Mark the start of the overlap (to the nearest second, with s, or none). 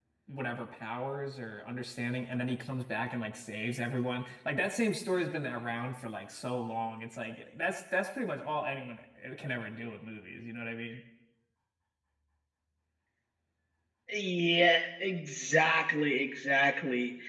none